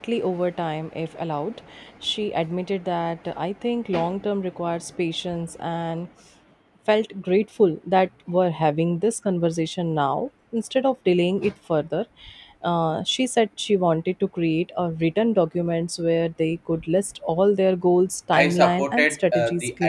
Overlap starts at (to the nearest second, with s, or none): 18 s